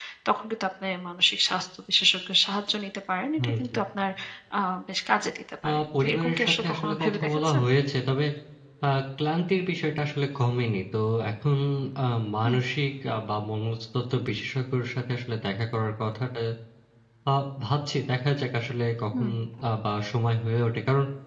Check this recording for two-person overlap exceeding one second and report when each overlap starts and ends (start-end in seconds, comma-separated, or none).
5.7-7.6